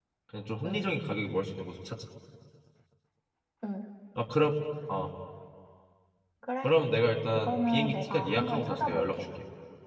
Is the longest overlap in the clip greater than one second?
Yes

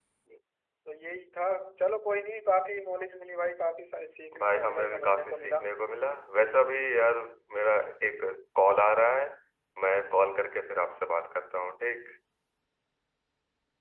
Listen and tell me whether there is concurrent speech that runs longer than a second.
Yes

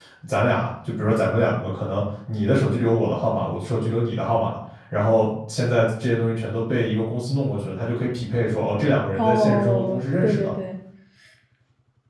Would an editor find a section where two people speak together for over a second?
Yes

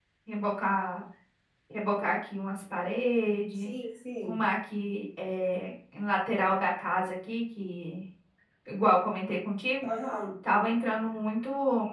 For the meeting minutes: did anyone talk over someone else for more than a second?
No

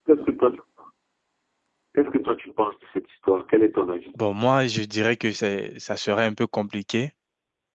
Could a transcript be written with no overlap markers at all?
Yes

